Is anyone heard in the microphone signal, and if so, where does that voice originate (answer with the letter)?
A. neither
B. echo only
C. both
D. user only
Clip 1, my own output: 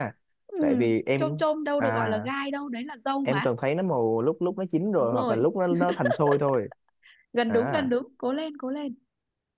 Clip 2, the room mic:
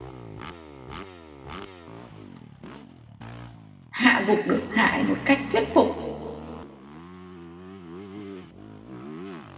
D